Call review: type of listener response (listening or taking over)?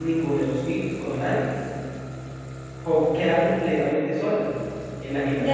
taking over